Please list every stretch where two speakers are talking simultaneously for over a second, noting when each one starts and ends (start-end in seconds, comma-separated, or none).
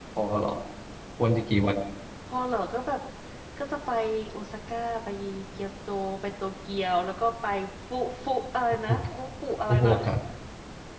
none